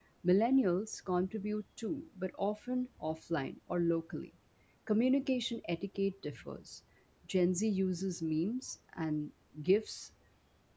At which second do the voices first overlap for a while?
none

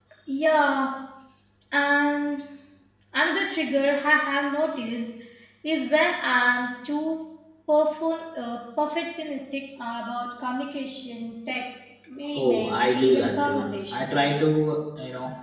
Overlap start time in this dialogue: 12.2 s

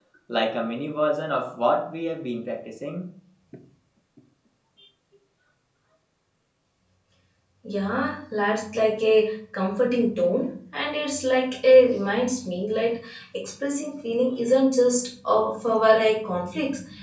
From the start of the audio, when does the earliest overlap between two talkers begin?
none

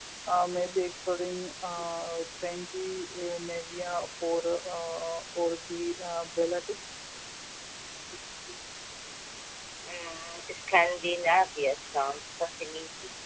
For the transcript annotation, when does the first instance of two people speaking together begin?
none

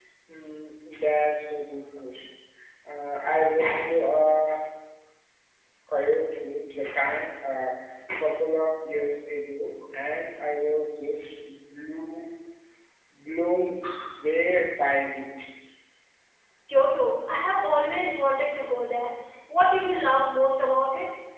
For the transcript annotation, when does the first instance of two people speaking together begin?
none

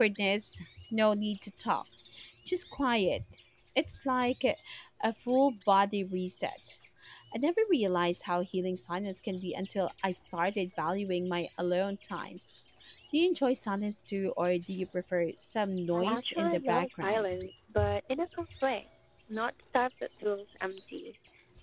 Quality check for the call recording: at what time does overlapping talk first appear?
15.9 s

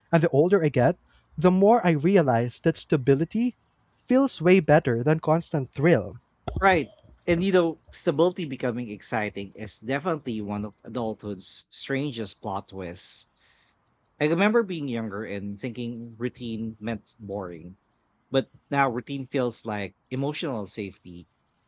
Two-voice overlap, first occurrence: none

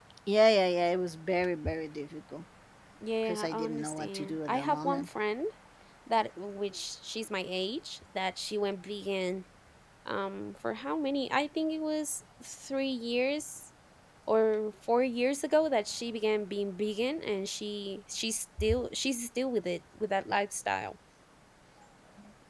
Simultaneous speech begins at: 3.3 s

